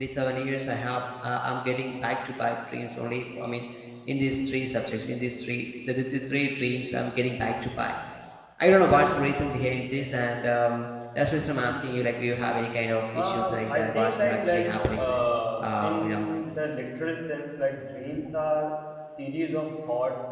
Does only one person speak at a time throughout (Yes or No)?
No